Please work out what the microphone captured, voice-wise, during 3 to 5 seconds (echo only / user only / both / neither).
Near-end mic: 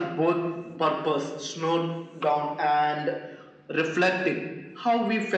echo only